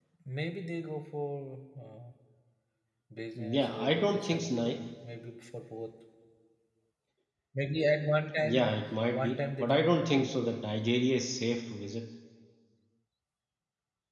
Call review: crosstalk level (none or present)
present